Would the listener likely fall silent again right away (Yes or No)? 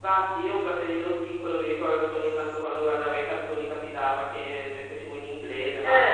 Yes